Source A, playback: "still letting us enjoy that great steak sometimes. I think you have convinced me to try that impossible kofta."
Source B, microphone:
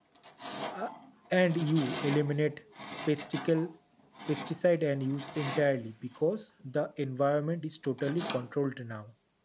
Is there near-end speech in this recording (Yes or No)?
Yes